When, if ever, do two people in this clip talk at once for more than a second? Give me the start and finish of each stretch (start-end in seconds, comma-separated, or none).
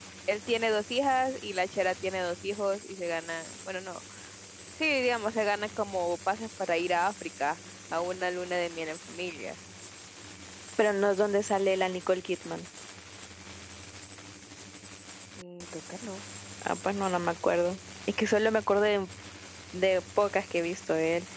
none